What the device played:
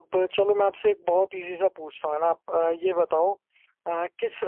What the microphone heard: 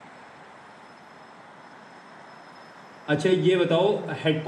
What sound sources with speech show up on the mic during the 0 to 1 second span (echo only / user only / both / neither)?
neither